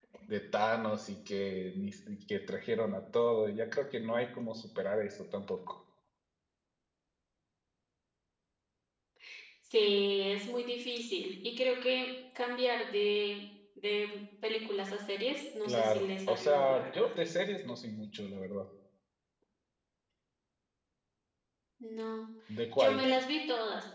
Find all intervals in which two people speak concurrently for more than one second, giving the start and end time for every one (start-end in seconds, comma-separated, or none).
15.6-17.1